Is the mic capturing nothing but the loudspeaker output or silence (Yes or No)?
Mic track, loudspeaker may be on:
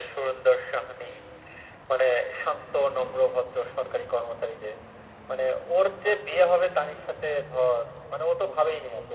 Yes